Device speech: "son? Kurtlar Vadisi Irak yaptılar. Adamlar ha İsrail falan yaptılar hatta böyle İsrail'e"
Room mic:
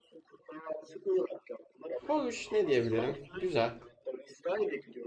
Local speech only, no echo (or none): Hoş ne diyebilirim? Güzel.